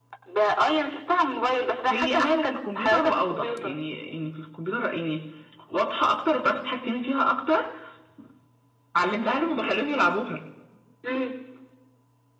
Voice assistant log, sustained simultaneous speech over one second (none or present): present